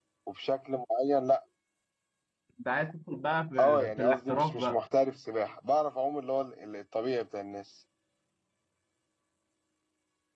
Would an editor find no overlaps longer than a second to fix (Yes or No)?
No